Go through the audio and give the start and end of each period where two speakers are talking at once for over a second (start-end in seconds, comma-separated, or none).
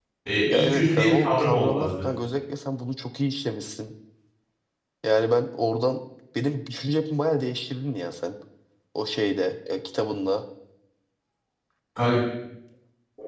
0.5-2.0